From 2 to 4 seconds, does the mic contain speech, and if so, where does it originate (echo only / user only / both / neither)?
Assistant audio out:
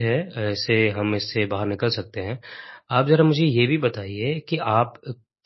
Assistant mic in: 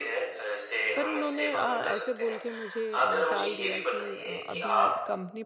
both